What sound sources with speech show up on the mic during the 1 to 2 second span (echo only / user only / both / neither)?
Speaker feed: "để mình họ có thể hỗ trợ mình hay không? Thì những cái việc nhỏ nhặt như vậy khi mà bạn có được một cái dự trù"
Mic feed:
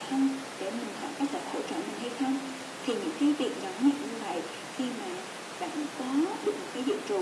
echo only